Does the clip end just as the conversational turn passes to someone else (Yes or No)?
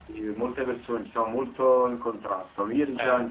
No